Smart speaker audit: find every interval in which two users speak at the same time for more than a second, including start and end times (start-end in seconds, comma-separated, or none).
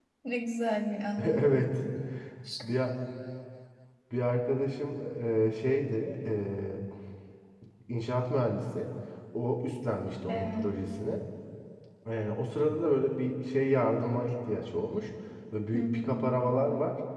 none